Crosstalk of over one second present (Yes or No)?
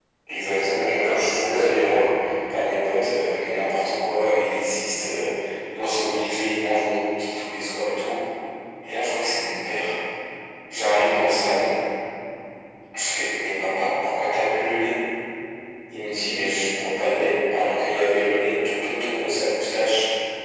Yes